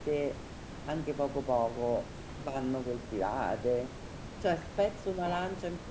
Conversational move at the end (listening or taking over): listening